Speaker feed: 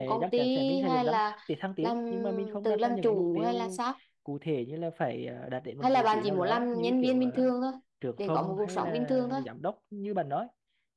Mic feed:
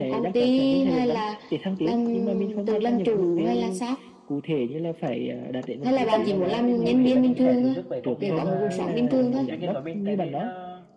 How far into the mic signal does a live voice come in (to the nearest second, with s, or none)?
6 s